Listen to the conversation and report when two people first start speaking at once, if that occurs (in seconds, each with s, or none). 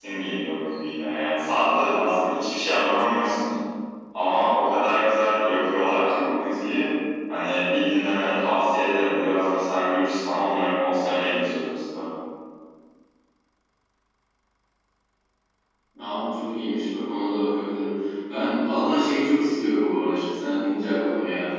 none